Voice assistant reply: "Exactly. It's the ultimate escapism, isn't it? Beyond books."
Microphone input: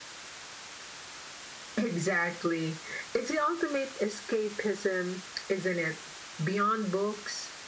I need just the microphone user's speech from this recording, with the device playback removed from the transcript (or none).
none